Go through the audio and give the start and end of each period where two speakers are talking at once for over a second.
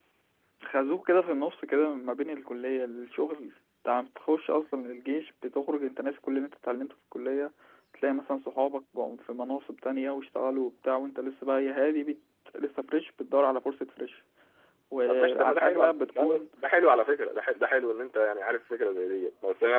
15.1-16.4

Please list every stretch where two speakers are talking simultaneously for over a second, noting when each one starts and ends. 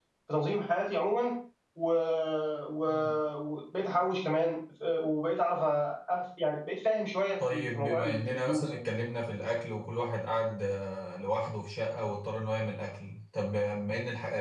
7.4-8.8

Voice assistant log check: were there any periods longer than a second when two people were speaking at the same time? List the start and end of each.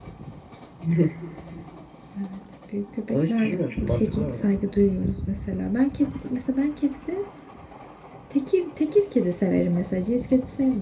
3.1-4.5

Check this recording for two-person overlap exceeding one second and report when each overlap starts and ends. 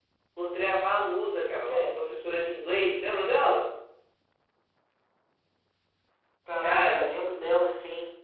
none

